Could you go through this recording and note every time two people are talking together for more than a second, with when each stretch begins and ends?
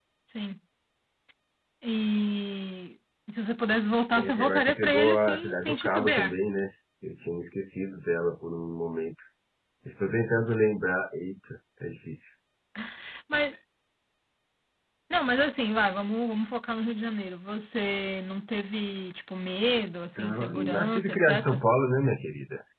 4.2-6.4, 20.2-21.6

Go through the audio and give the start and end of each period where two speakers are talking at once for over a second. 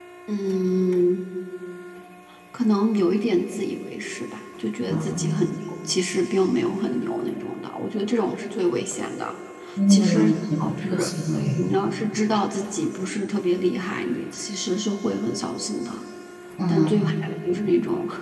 9.9-11.1

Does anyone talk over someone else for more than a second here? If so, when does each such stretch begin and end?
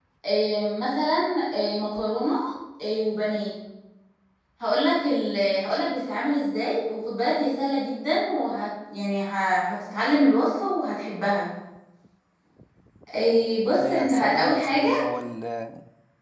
13.7-15.0

